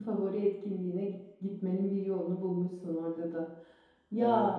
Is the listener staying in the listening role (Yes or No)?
Yes